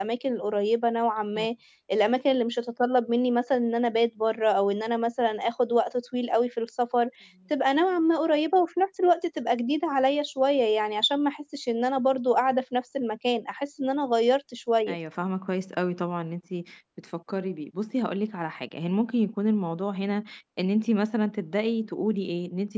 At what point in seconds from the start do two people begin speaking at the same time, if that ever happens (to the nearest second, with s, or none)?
none